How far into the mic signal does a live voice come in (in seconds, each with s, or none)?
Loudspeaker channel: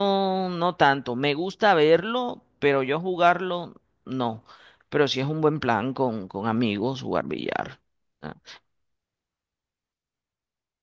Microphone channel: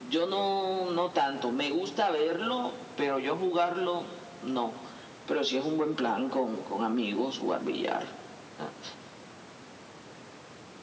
none